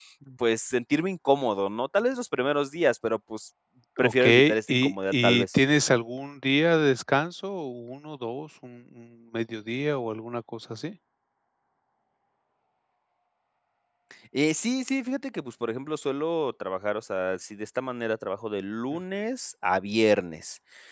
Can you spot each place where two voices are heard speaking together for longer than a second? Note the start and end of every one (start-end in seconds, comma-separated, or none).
4.0-5.4